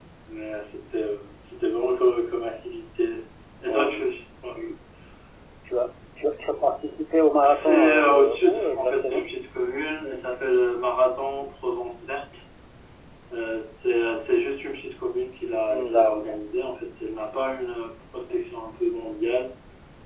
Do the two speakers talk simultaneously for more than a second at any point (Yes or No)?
Yes